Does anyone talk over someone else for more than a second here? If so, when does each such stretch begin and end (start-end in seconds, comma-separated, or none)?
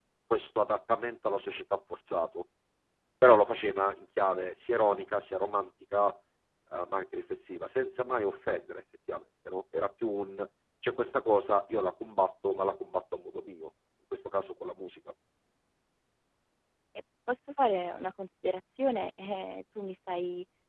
none